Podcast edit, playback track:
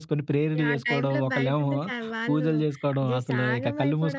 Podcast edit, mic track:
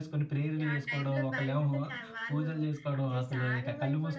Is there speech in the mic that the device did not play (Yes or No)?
No